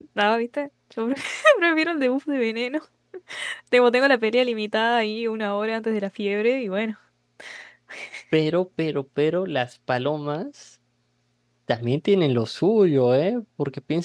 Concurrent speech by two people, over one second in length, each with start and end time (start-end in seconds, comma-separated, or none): none